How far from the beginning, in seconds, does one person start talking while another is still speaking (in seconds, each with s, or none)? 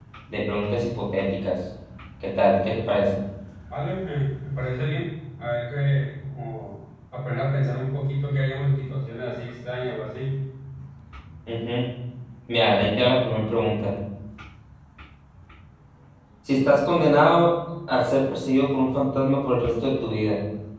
none